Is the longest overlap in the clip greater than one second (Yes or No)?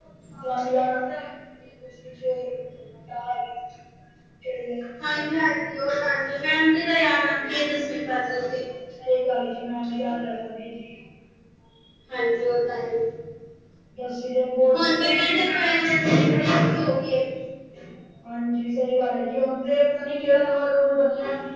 Yes